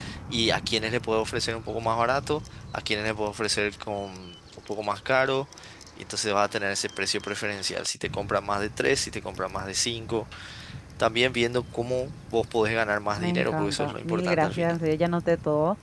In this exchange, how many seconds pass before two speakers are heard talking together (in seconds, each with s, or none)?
13.2 s